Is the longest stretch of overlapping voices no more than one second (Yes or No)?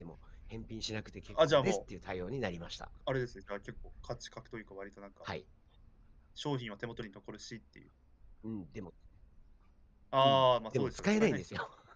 No